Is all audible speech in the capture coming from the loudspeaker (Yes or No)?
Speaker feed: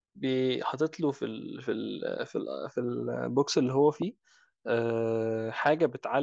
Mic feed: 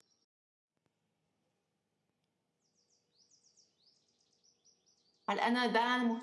No